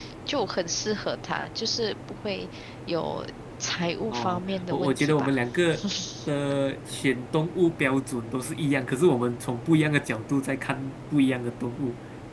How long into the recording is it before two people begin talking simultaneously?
4.0 s

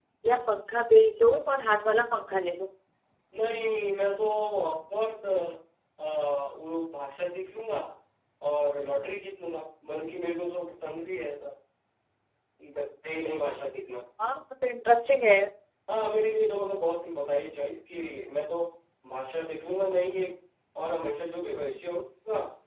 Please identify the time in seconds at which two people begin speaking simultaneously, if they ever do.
none

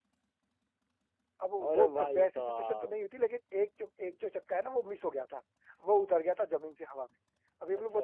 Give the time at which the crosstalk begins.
1.7 s

